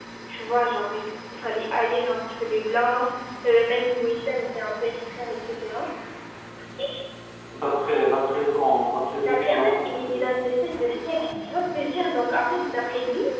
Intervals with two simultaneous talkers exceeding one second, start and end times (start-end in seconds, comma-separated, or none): 9.3-10.7